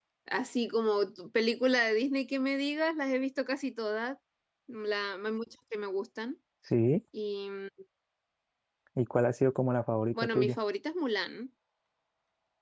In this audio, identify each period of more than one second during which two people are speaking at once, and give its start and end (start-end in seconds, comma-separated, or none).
none